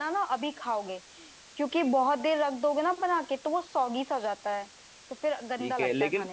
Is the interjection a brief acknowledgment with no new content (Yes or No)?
No